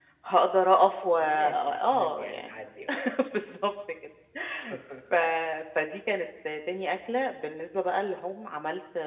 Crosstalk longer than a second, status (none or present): present